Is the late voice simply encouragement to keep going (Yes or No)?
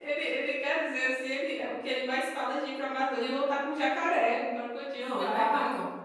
No